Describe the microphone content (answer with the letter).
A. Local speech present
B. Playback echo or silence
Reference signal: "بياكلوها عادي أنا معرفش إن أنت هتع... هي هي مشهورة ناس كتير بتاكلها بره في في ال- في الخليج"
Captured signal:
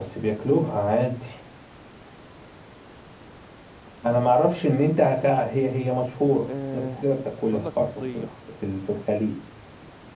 A